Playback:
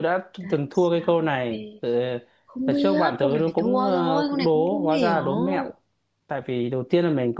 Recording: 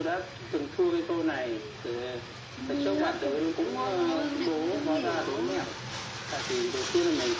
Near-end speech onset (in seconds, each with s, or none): none